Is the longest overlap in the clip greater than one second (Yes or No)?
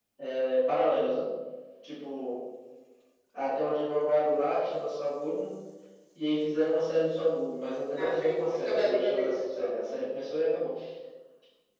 Yes